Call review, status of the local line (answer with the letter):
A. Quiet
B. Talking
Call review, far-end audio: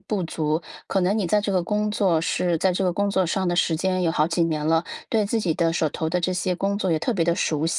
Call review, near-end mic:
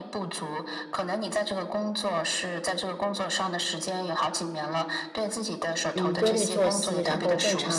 B